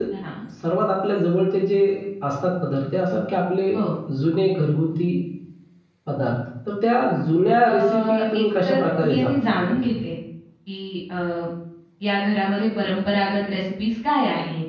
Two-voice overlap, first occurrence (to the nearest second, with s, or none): 8 s